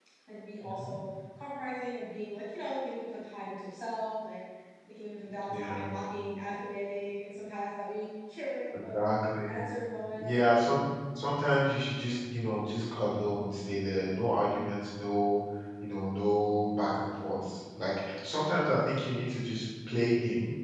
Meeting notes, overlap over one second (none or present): none